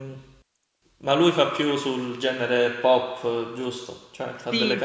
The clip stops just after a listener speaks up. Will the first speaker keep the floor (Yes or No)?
No